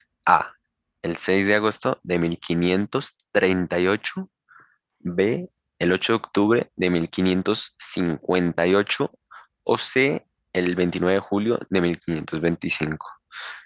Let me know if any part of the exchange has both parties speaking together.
No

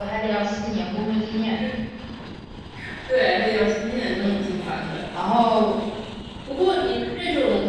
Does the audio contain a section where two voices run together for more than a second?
No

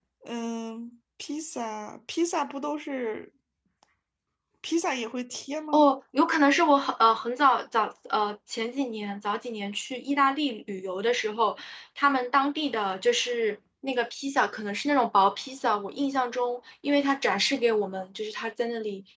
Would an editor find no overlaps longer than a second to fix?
Yes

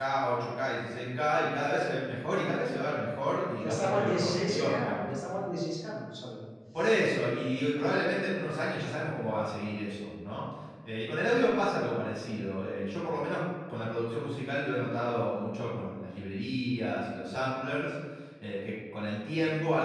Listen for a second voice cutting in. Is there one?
Yes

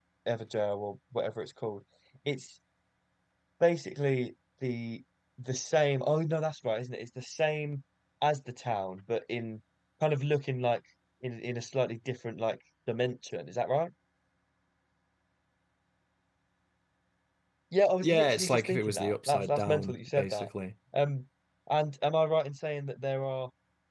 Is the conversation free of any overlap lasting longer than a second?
No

